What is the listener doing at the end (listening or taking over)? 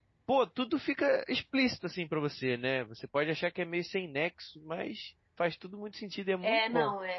taking over